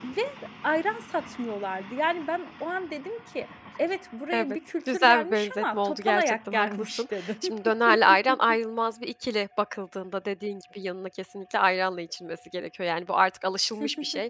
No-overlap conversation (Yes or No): No